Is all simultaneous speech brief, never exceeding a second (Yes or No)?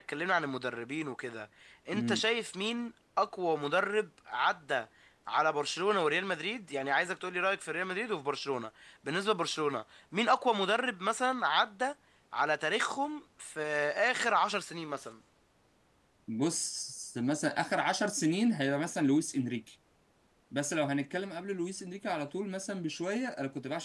Yes